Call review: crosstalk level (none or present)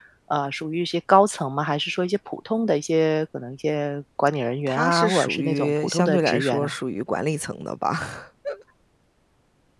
present